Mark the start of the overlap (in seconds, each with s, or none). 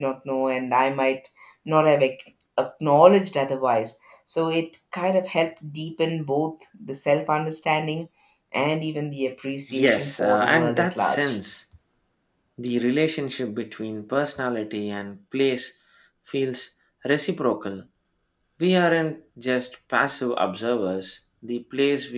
9.7 s